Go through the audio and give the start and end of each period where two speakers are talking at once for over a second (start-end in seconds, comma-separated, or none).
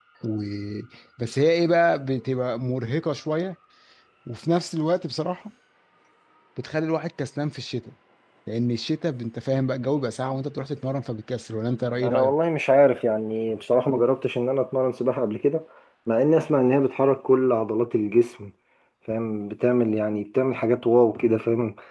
none